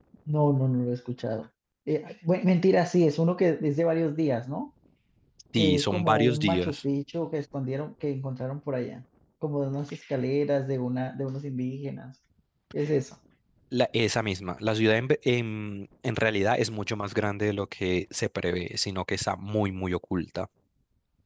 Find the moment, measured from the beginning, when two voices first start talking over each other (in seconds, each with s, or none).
5.6 s